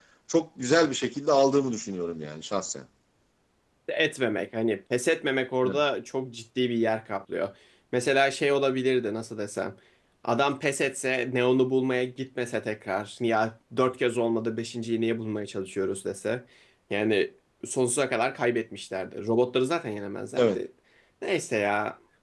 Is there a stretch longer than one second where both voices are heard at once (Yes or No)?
No